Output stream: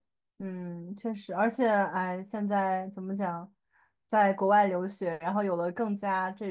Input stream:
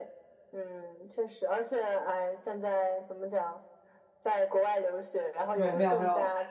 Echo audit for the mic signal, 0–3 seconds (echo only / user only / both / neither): echo only